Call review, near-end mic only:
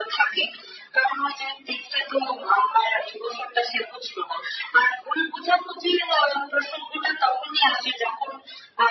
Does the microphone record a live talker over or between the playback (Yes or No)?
No